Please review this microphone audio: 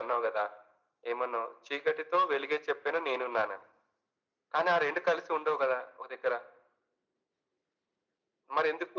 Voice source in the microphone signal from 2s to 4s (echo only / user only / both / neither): echo only